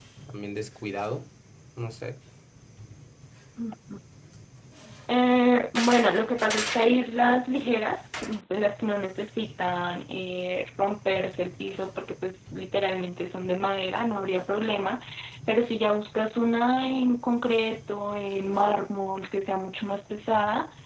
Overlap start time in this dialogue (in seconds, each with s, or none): none